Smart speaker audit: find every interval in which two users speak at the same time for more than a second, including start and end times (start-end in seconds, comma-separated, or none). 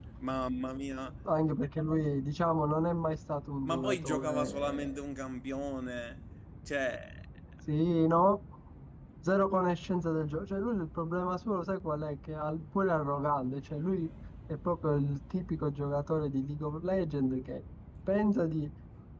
3.6-5.0